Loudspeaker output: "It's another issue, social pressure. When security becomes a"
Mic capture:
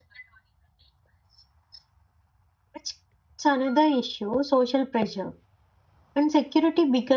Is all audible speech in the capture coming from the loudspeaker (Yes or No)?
Yes